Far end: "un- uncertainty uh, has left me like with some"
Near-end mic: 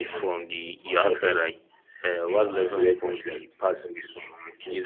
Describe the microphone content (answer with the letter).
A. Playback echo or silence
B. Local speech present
B